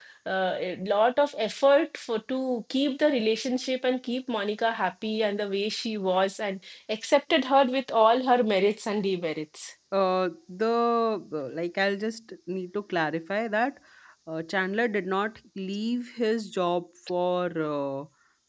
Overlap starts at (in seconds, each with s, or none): none